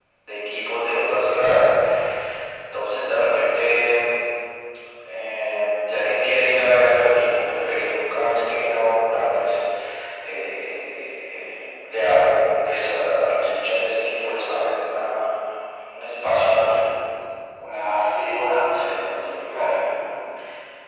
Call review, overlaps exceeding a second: none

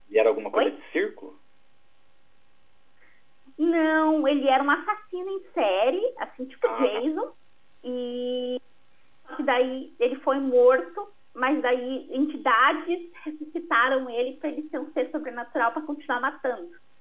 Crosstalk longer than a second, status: none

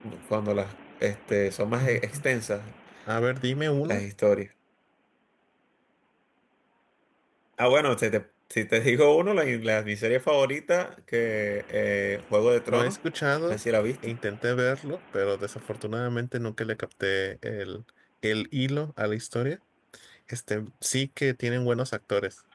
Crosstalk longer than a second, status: none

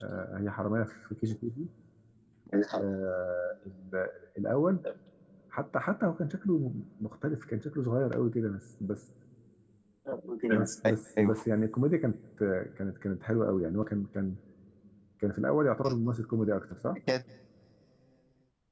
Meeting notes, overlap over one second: none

